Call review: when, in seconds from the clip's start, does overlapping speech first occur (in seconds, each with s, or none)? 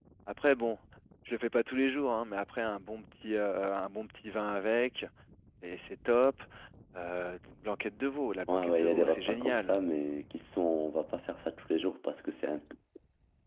8.5 s